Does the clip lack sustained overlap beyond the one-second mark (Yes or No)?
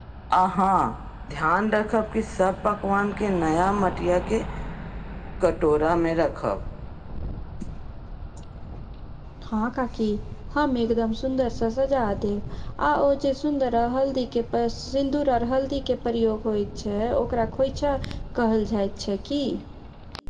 Yes